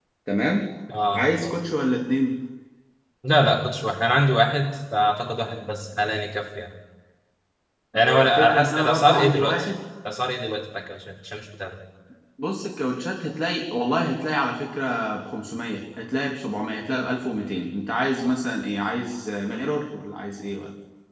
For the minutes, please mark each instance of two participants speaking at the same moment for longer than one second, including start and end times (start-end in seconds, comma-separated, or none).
8.1-9.7